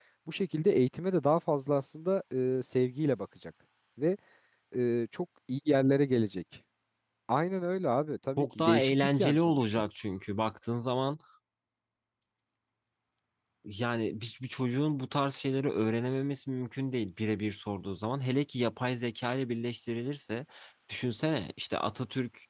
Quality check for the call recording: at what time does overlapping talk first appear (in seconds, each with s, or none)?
8.4 s